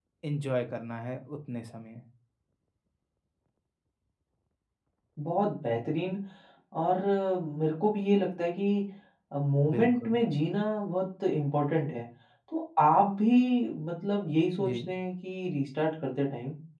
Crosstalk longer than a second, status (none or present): none